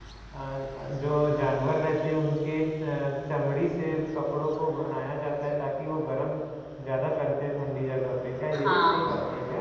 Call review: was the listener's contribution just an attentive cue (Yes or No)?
No